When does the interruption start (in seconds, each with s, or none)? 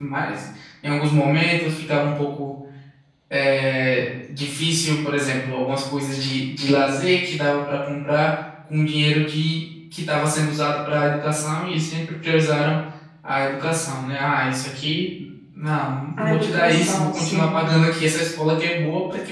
16.2 s